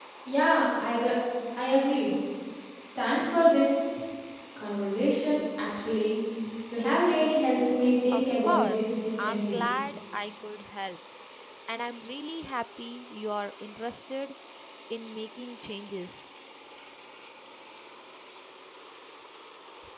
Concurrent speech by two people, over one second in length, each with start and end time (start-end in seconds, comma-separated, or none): 8.1-9.6